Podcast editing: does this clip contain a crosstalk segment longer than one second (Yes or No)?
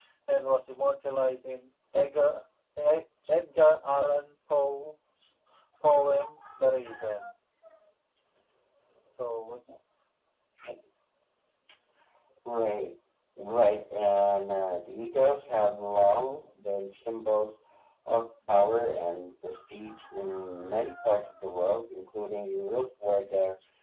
No